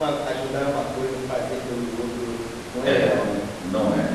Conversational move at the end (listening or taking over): taking over